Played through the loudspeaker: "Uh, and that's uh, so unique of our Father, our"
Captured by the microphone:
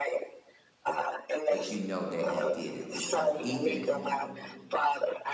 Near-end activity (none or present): present